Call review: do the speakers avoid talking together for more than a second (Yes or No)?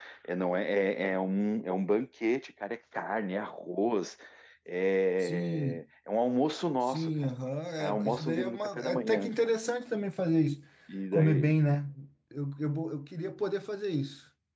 No